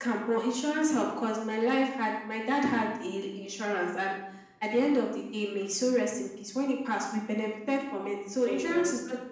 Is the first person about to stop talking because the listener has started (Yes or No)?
No